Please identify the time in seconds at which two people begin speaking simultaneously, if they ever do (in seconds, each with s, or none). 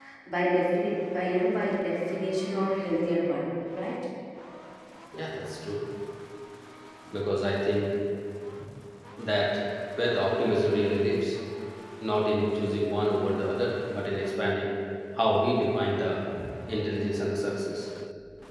none